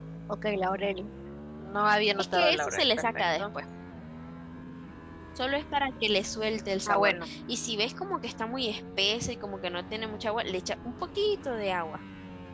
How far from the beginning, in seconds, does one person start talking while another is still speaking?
2.2 s

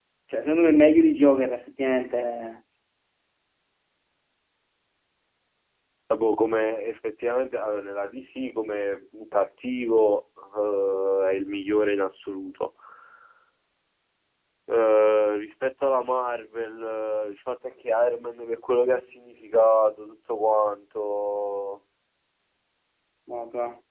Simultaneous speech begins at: none

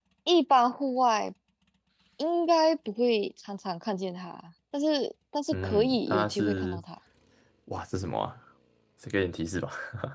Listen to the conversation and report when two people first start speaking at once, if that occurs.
5.5 s

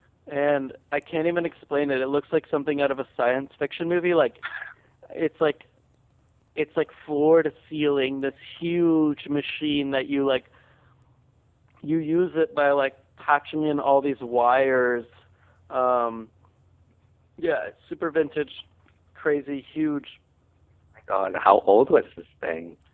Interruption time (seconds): none

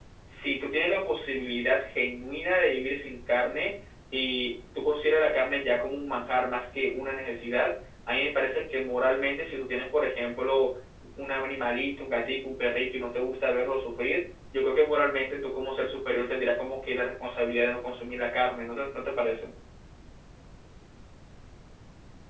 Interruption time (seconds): none

